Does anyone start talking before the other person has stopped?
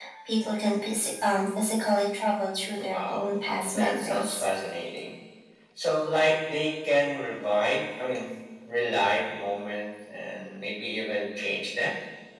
Yes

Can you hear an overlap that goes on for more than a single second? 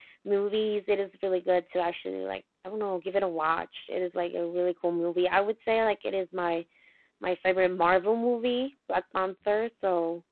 No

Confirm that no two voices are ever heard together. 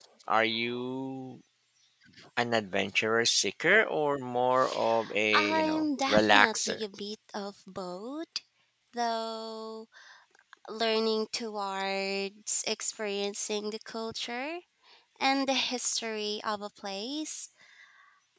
No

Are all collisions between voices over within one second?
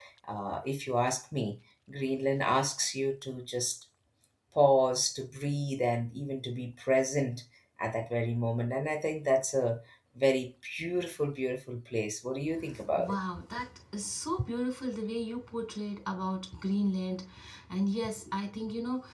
Yes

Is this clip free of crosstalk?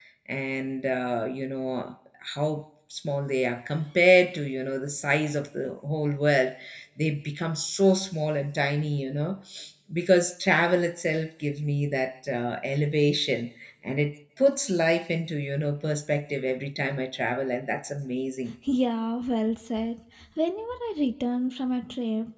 Yes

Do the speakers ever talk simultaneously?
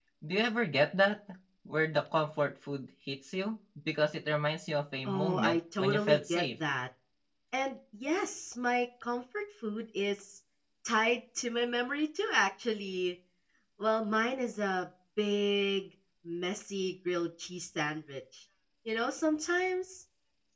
Yes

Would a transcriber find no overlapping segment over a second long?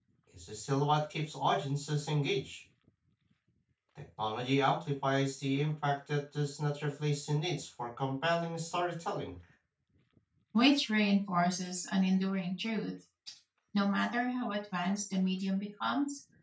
Yes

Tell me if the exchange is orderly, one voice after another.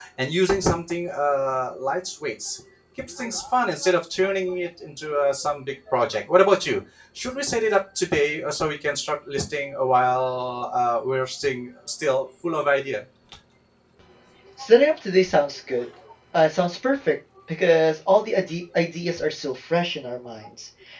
Yes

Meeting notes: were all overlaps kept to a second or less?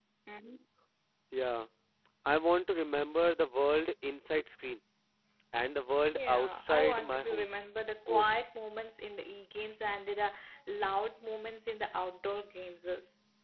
No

